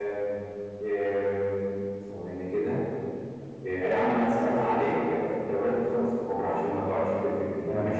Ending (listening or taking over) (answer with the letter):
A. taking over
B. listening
A